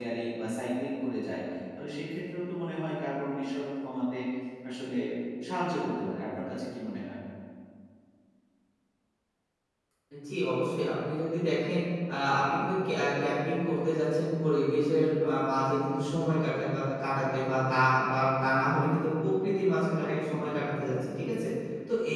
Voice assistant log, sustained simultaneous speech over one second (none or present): none